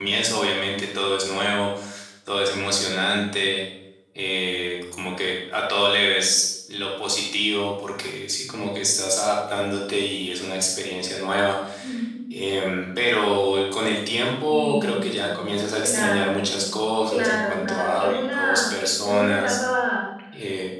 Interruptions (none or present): present